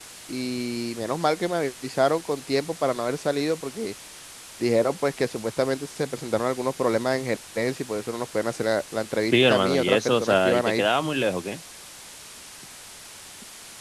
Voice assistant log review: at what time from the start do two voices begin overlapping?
9 s

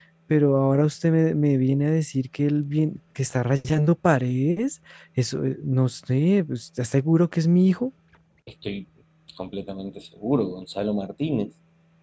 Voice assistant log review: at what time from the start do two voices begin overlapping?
none

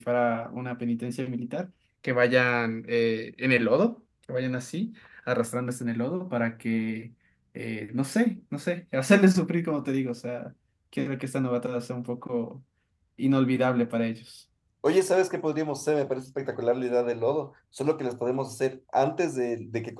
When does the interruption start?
none

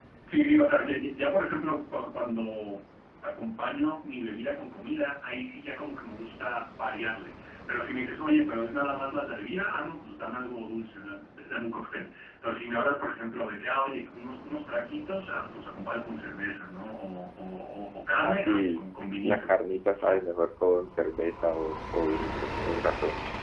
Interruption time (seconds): 18 s

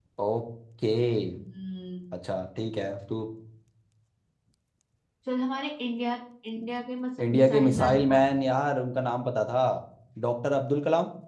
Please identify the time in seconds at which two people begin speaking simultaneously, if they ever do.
7 s

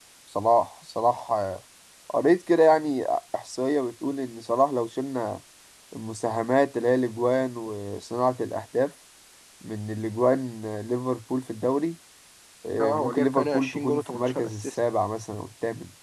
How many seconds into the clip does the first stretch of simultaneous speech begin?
13 s

